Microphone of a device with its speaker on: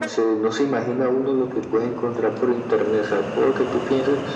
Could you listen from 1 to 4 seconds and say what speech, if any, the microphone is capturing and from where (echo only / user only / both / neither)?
echo only